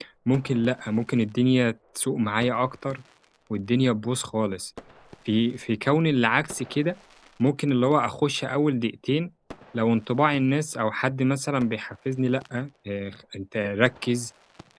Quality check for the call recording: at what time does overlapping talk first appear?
none

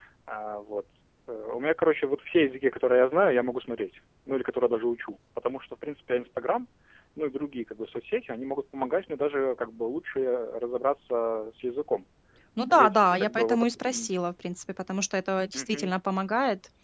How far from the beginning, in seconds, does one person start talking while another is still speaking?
13 s

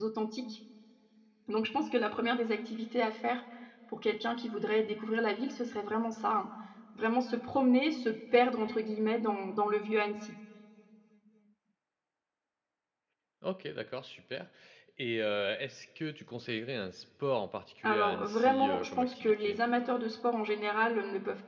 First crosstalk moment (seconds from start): 18 s

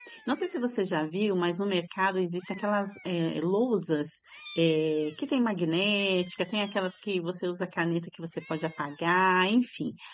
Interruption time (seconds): none

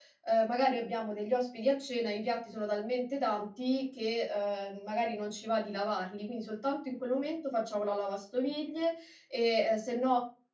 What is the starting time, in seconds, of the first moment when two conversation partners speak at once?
none

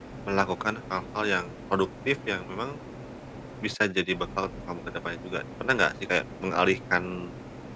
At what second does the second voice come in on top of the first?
none

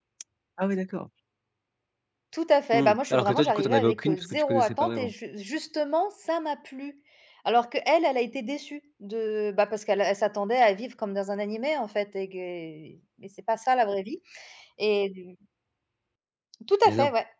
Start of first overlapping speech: 3 s

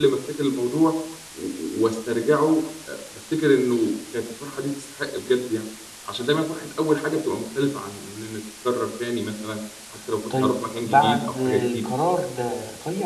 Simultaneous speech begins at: 10 s

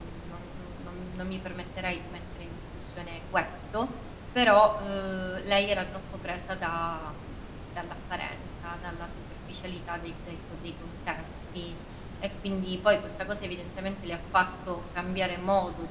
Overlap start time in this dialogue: none

